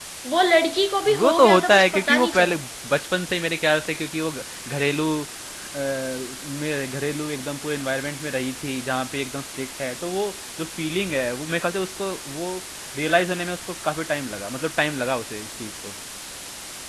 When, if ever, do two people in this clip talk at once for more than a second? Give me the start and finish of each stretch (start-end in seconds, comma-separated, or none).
1.1-2.5